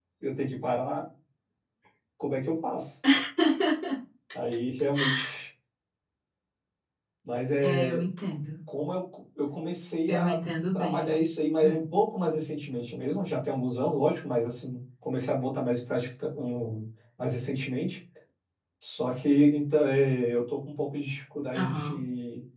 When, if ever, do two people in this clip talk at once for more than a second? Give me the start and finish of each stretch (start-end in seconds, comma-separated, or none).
none